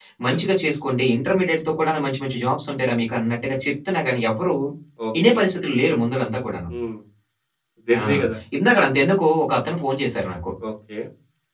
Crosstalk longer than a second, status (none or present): none